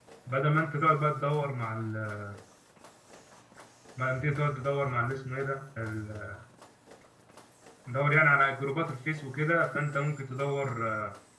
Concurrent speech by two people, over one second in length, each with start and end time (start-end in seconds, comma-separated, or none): none